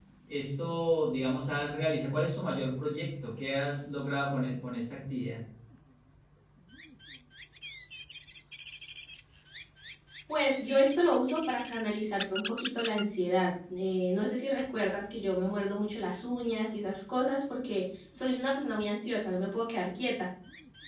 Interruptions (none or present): none